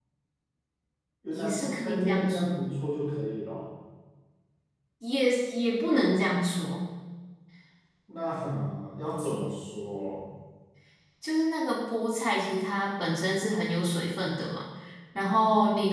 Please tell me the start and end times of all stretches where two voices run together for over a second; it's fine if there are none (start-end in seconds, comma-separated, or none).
1.3-2.7